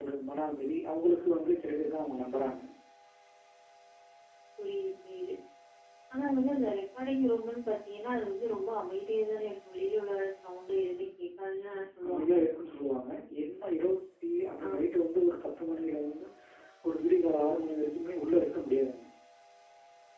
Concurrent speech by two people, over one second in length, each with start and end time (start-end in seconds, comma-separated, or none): none